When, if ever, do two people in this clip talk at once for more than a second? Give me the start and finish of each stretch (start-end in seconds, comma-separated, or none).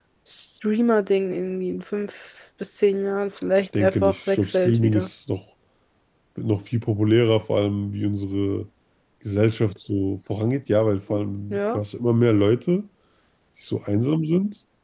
3.8-5.1